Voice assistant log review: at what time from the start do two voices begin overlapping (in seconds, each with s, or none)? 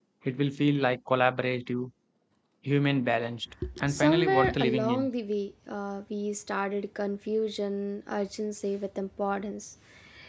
3.6 s